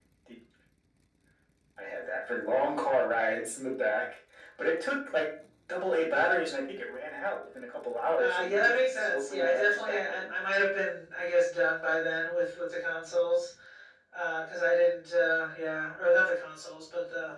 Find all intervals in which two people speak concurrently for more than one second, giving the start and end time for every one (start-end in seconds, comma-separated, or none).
8.2-10.3